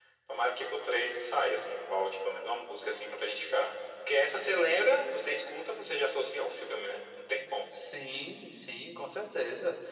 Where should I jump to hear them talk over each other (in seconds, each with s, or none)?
none